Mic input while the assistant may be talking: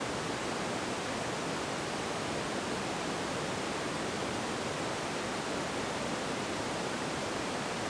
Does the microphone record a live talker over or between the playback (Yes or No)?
No